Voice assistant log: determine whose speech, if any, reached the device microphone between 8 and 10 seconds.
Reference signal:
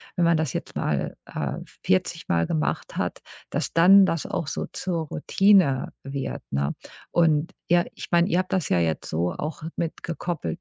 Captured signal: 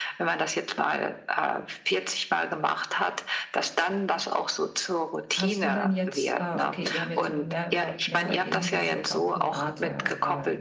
both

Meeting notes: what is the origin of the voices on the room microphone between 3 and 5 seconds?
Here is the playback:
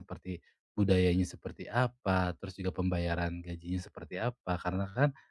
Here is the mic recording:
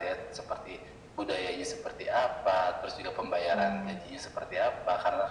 both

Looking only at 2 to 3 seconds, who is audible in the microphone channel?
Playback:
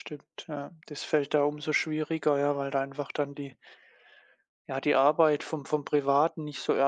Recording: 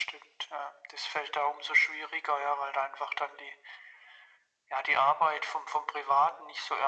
echo only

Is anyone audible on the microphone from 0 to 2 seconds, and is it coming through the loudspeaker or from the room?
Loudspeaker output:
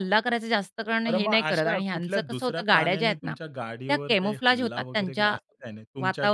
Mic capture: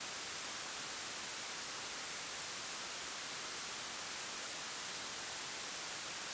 neither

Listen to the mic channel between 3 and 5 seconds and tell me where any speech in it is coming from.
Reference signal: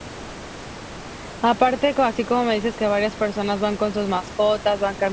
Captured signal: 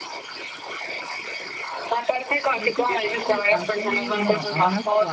both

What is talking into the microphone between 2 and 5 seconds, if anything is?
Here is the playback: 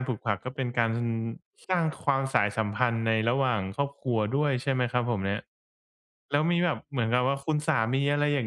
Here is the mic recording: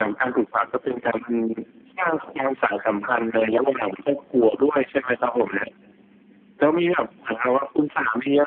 echo only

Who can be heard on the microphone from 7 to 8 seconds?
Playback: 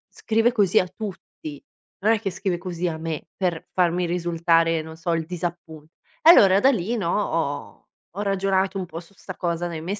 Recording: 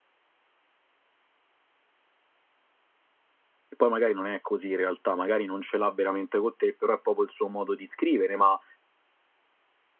user only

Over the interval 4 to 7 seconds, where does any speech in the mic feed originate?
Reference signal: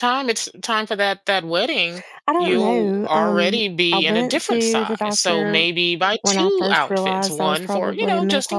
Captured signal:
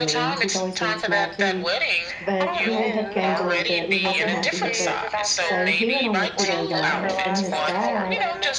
both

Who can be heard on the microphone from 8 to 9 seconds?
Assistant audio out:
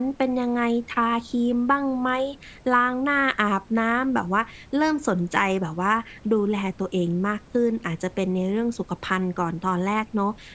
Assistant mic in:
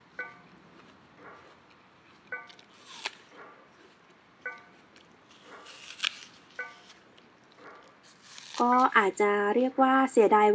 user only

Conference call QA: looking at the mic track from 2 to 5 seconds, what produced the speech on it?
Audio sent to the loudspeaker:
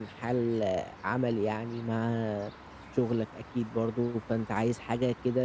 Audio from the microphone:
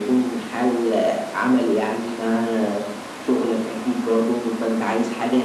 echo only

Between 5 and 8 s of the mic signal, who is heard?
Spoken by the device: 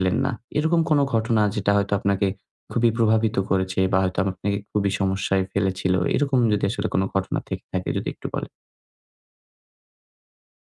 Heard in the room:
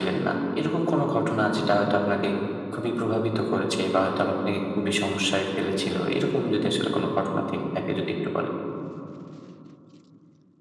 echo only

